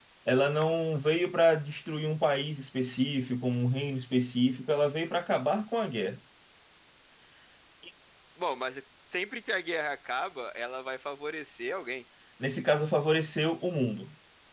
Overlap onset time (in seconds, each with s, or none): none